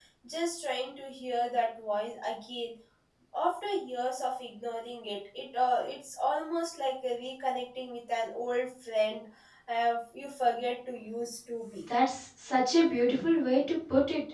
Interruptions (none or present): none